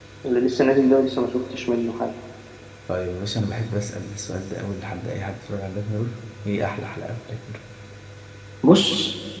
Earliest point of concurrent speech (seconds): none

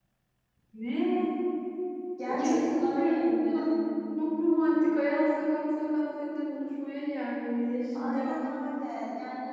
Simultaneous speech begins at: 2 s

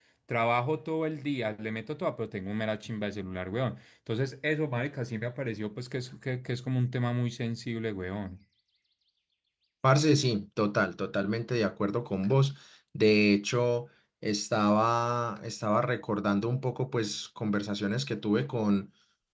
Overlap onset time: none

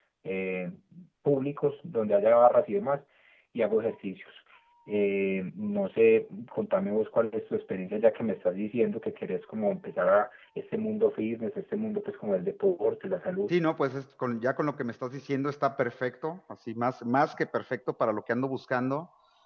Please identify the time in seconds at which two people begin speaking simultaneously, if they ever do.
none

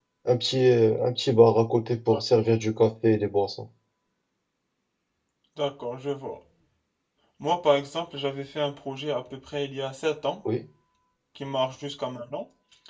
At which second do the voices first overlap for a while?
none

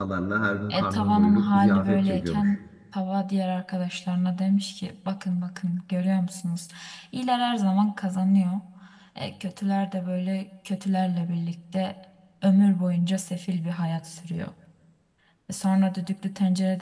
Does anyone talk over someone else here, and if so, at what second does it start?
1 s

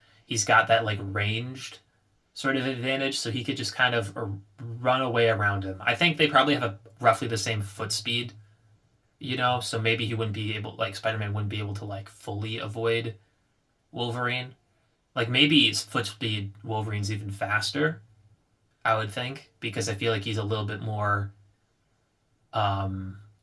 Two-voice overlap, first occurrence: none

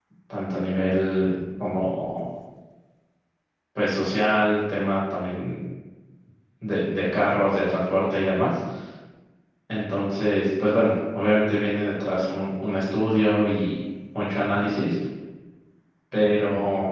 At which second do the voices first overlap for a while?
none

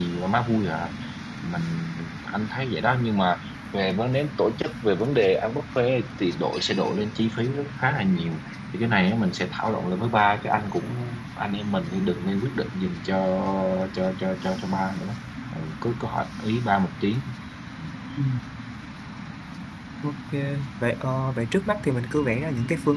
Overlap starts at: none

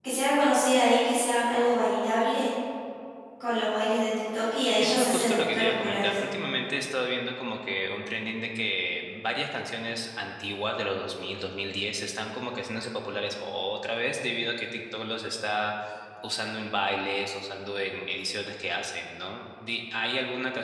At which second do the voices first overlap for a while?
5 s

